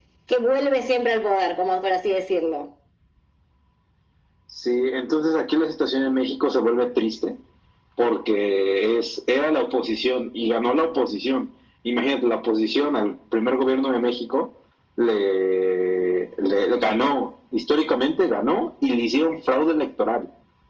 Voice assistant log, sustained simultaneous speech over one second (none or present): none